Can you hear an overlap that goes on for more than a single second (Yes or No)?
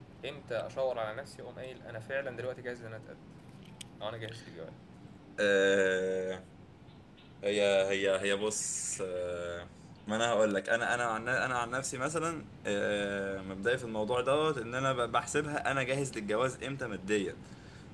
No